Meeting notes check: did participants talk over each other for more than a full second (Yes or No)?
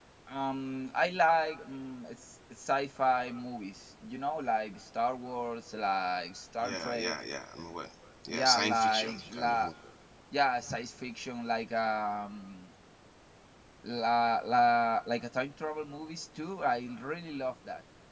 Yes